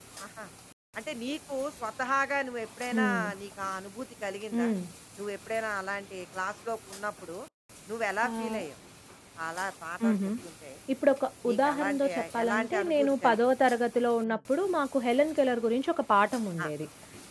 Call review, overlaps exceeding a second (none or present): present